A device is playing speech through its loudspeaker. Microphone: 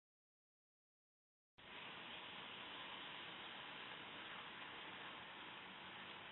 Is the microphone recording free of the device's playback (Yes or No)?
Yes